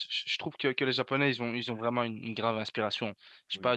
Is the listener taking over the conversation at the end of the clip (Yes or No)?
No